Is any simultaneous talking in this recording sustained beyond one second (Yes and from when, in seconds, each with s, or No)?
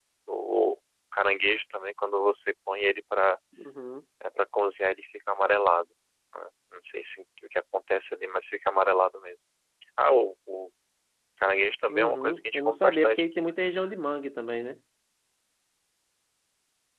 Yes, from 11.9 s